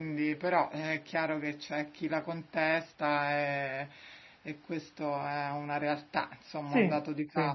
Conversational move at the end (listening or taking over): taking over